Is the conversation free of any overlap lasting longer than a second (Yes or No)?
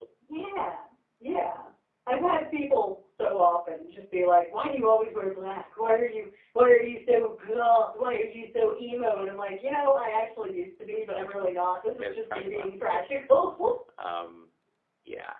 No